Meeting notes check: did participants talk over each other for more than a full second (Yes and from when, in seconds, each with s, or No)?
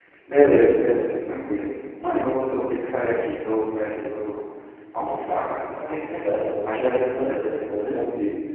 Yes, from 5.8 s